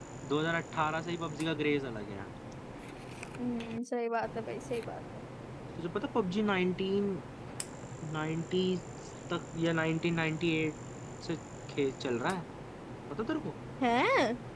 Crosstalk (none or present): none